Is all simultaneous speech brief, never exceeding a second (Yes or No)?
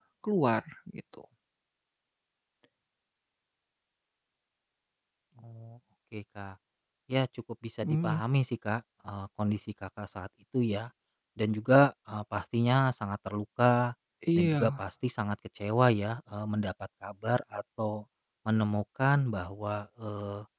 Yes